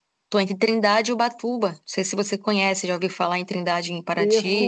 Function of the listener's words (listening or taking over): taking over